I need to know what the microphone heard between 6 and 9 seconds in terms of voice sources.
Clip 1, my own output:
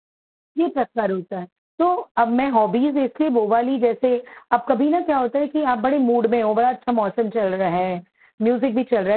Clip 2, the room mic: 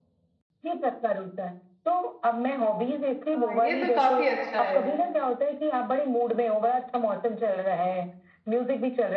echo only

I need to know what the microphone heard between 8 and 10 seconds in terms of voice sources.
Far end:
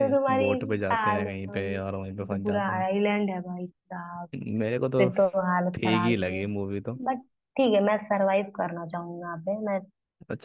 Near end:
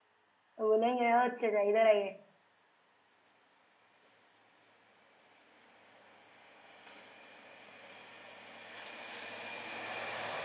neither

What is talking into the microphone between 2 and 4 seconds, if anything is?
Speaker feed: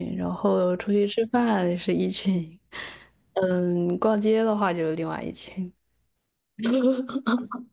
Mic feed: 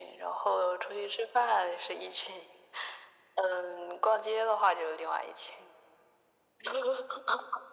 echo only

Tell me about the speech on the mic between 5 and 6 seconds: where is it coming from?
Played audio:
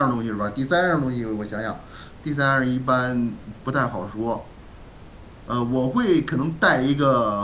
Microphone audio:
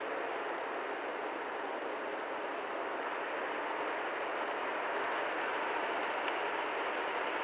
neither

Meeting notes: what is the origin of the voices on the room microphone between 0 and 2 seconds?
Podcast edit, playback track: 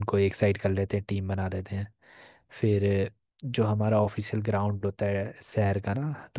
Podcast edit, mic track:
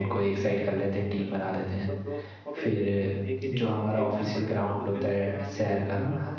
both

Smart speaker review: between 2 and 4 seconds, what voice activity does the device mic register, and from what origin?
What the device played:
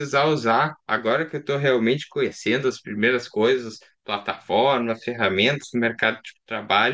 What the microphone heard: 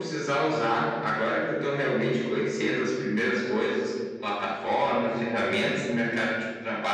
echo only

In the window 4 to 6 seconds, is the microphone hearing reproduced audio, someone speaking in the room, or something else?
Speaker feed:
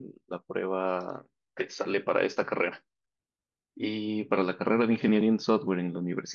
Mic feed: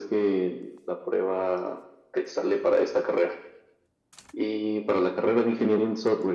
echo only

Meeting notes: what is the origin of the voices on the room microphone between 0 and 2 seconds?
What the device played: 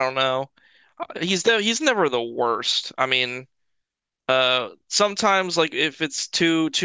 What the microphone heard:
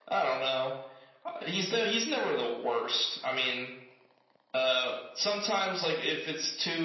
echo only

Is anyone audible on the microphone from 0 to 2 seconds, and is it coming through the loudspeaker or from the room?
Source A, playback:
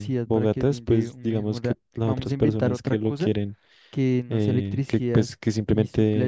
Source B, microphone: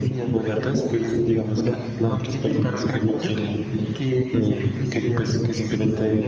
echo only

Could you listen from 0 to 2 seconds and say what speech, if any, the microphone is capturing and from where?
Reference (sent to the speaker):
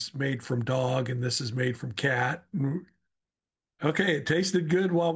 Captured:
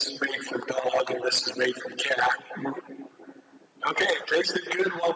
echo only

